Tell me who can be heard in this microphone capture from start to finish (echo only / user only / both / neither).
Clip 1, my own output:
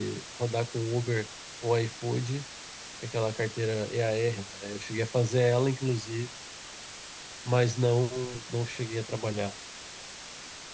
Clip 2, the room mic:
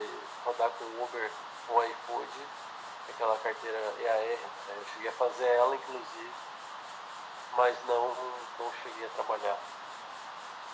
echo only